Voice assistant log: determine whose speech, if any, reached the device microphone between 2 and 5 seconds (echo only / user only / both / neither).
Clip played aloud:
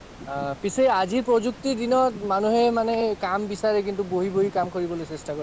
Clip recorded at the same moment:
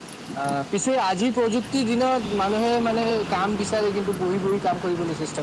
echo only